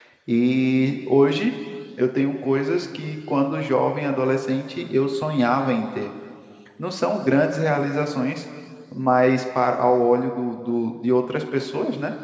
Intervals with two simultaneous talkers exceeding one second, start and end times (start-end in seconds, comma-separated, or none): none